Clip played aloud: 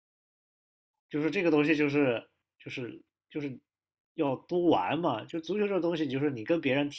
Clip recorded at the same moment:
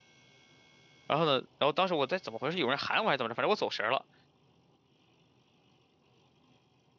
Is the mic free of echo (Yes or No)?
Yes